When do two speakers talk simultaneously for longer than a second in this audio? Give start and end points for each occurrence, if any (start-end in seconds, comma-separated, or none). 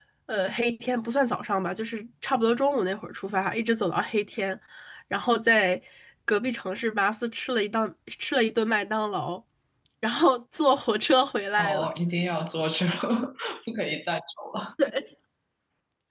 none